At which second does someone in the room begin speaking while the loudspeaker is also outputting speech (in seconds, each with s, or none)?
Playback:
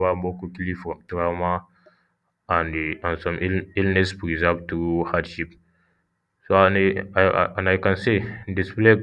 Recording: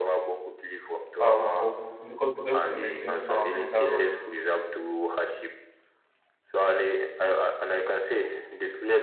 1.2 s